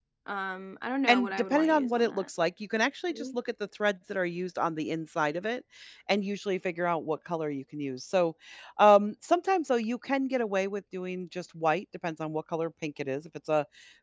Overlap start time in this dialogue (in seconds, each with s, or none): 1.1 s